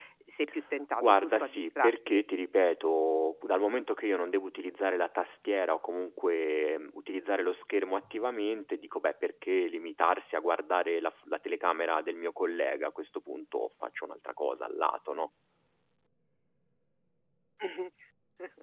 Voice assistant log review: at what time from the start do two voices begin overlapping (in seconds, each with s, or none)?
0.9 s